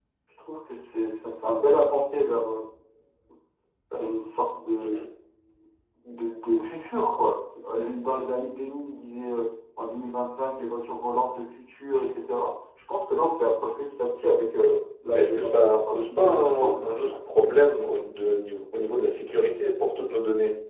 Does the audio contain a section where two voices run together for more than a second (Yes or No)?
Yes